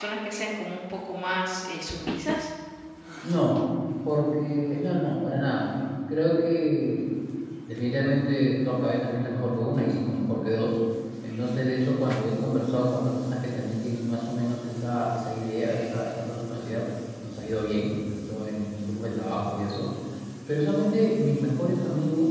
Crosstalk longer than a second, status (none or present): none